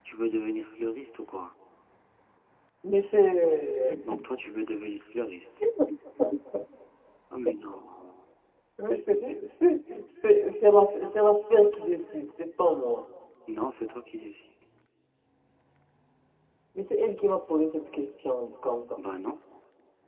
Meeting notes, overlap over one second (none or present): none